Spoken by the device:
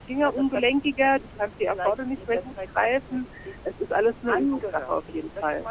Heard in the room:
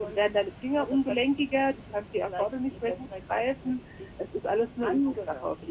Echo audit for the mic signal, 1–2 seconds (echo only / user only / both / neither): echo only